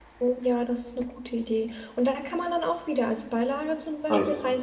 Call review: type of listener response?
listening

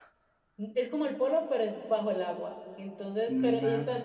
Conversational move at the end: listening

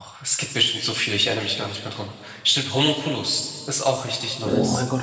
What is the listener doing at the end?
taking over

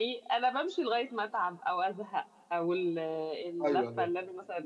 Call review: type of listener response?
listening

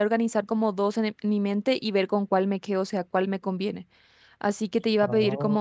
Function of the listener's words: listening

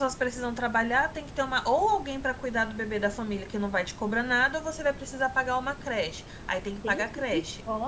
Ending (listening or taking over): taking over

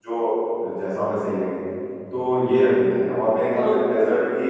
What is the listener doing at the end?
listening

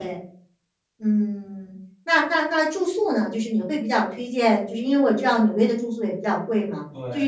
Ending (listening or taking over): listening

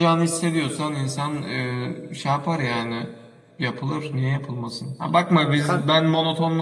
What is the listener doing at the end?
listening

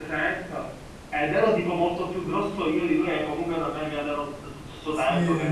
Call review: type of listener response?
taking over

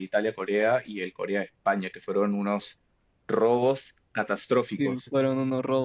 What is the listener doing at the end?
taking over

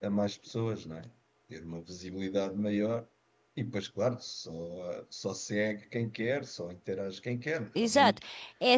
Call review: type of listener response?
taking over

